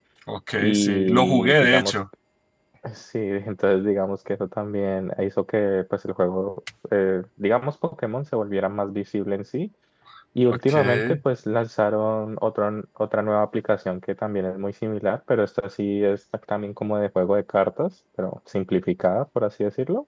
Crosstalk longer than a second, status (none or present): present